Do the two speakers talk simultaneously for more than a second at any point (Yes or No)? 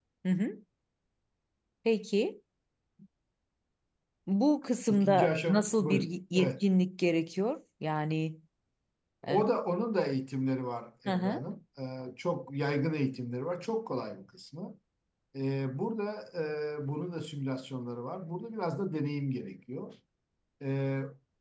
Yes